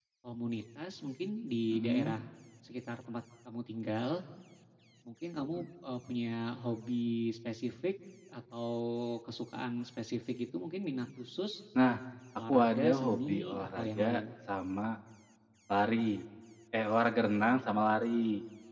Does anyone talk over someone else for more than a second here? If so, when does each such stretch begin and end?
12.5-14.2

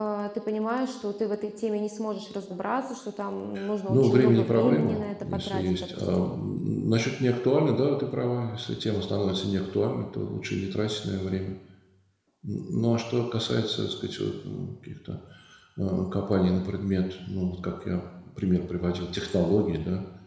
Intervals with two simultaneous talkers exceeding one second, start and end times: 3.9-6.3

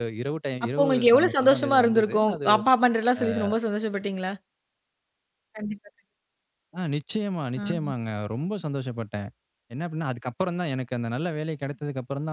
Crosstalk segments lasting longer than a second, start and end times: 0.8-2.4

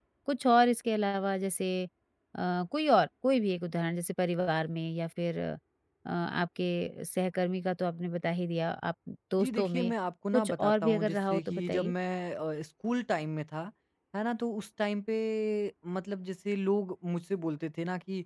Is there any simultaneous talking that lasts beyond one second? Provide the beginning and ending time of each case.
10.3-11.9

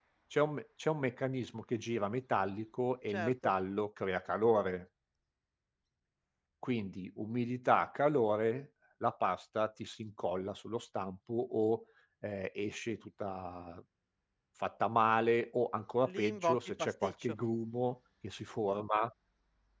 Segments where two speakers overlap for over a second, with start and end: 16.1-17.4

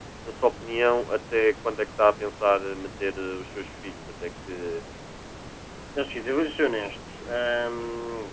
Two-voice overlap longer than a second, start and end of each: none

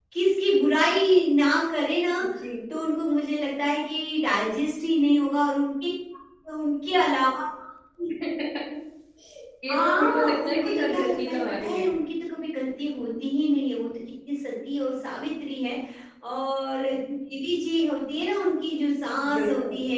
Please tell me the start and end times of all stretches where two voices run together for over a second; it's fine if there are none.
9.7-11.9

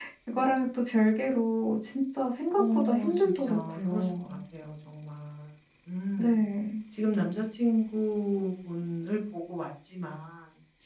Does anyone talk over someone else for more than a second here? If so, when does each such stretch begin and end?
2.6-4.4

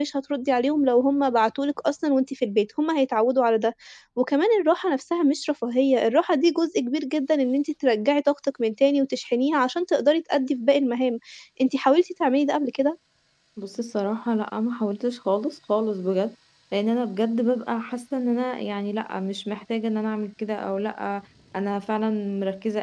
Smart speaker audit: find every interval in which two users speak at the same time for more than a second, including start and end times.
none

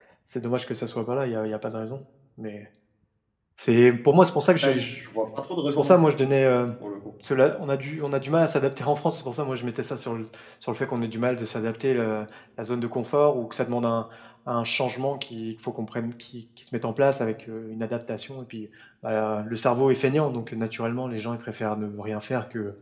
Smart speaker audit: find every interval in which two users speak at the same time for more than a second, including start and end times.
none

